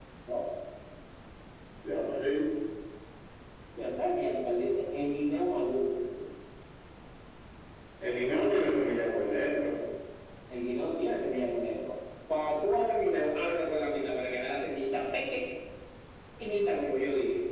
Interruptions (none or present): none